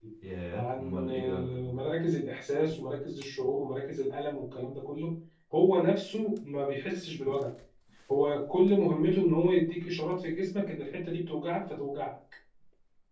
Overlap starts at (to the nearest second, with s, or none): 1 s